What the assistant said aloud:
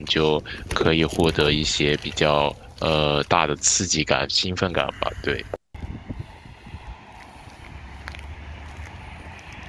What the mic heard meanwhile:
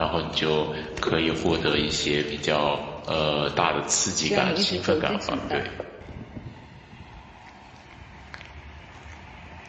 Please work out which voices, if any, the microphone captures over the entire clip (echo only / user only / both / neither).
both